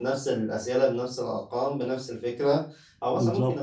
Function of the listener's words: listening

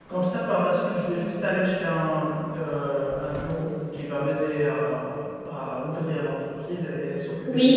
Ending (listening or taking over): taking over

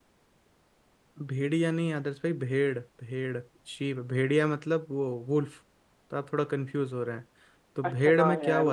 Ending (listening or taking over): taking over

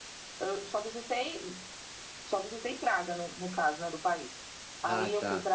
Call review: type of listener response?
listening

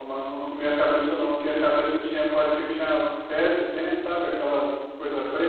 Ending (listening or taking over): taking over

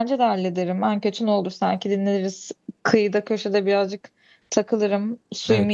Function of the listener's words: taking over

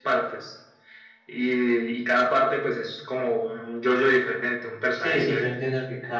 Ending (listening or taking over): taking over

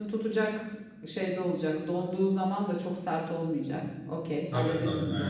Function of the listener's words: taking over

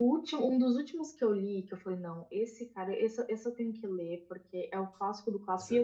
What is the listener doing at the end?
listening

